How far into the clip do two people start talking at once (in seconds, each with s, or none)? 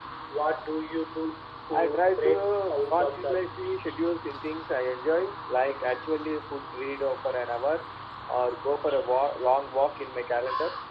1.7 s